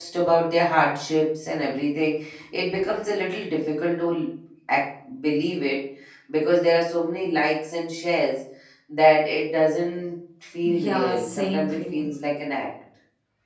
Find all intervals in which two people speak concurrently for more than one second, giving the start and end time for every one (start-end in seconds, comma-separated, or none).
10.7-12.1